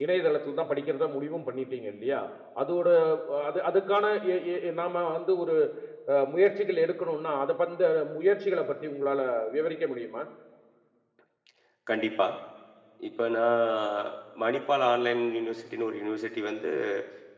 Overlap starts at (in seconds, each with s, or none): none